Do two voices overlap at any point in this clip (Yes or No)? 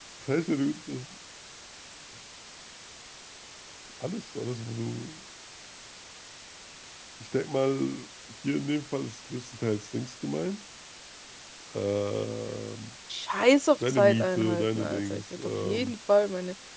Yes